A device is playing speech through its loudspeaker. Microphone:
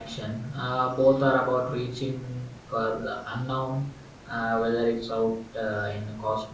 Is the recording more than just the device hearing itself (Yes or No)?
Yes